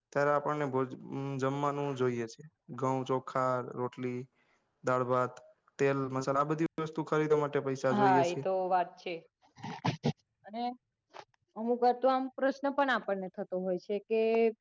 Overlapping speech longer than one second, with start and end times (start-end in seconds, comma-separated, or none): none